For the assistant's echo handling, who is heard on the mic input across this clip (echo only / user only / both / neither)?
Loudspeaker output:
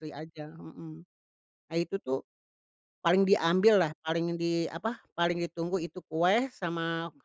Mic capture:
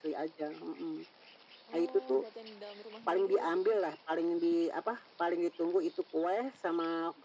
both